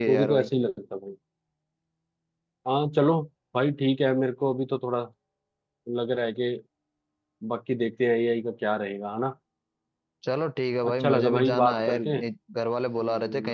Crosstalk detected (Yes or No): Yes